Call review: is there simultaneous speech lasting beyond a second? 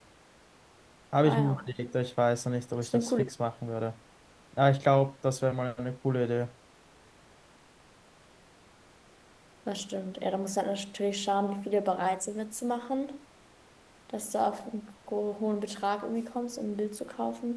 No

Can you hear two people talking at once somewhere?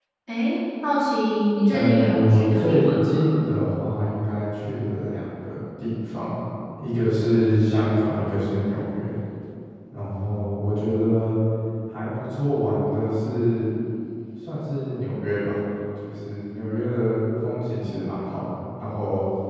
Yes, from 1.7 s

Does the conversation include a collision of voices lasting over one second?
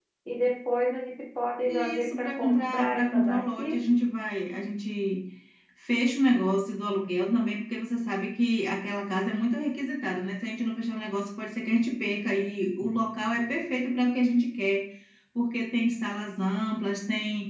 Yes, from 1.7 s

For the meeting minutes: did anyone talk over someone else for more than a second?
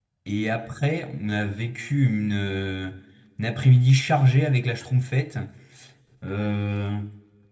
No

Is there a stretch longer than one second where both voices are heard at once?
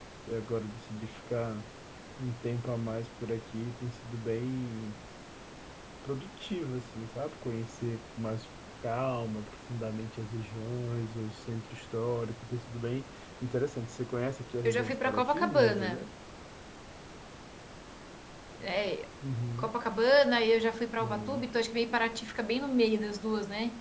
Yes, from 14.6 s

